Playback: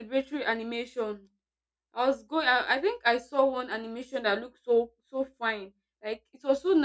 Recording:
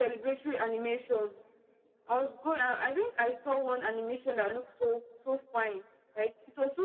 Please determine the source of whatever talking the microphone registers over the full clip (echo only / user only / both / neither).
echo only